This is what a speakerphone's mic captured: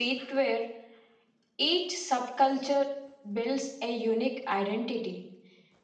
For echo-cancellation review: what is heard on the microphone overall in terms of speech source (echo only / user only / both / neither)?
echo only